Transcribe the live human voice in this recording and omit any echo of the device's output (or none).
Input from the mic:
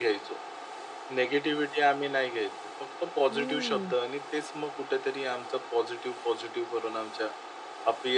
ओह!